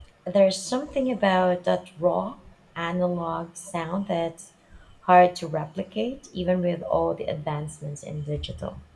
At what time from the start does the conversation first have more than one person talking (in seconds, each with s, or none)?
none